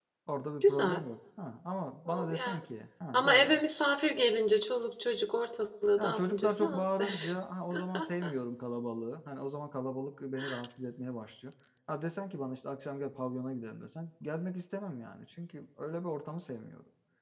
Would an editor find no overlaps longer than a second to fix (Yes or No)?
No